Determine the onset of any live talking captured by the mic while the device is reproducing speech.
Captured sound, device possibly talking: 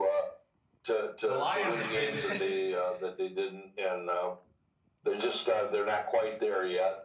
1.2 s

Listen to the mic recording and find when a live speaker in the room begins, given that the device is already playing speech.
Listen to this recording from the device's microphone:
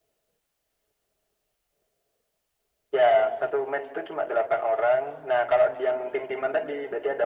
none

